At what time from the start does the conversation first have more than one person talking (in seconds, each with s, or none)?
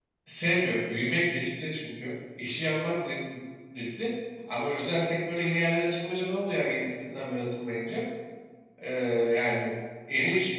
none